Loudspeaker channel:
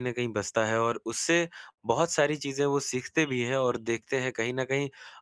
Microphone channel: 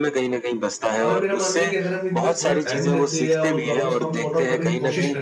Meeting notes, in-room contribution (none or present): present